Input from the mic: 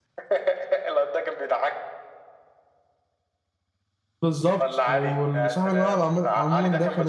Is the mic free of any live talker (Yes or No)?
No